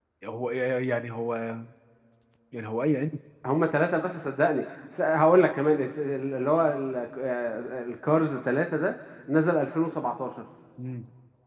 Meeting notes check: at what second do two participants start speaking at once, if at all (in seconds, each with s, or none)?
none